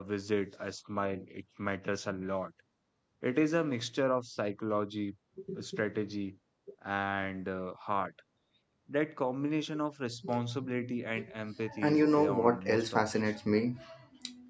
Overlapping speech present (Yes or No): Yes